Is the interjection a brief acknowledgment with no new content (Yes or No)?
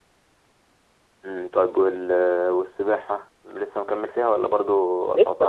No